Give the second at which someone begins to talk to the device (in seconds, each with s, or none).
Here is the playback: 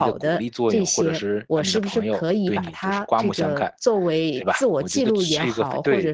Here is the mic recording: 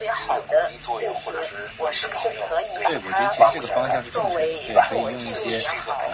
2.8 s